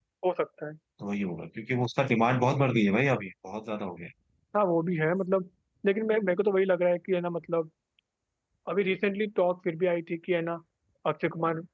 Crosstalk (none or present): none